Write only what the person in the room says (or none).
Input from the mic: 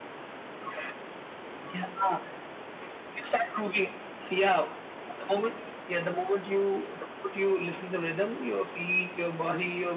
none